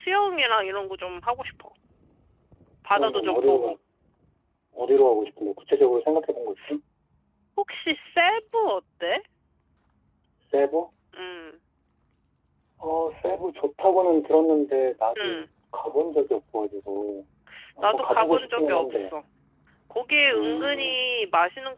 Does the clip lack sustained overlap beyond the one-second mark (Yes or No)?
No